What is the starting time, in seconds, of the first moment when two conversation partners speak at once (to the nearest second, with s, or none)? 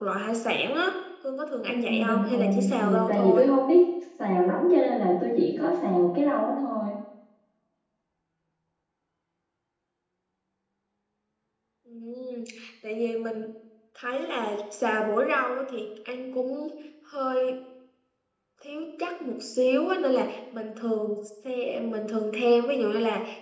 2 s